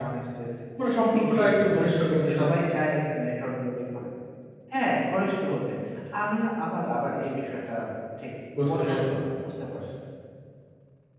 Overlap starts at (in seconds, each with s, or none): 1.2 s